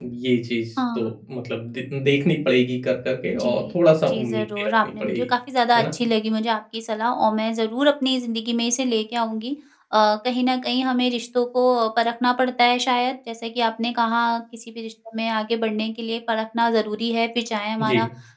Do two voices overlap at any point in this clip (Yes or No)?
Yes